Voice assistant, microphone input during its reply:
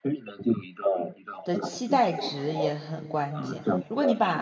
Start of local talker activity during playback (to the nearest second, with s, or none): 1 s